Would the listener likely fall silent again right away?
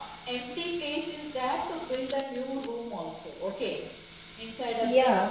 Yes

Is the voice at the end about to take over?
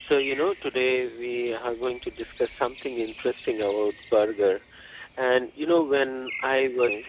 No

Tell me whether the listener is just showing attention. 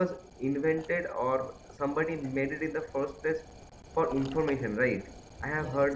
Yes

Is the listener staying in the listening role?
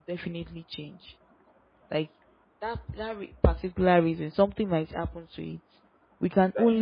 Yes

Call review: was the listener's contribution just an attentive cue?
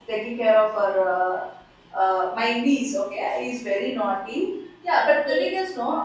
Yes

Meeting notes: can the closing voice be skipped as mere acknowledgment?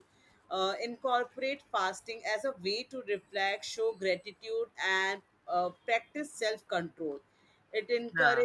Yes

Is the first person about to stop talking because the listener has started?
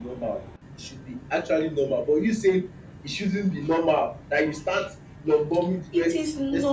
Yes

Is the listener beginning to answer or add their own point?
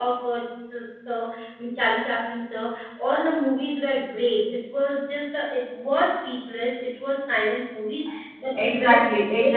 Yes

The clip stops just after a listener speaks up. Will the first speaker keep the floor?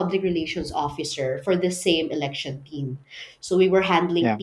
Yes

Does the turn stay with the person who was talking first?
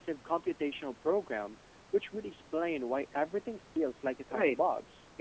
No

